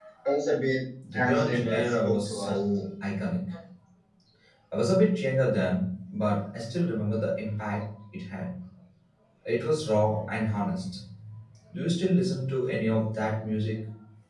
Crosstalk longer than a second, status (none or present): present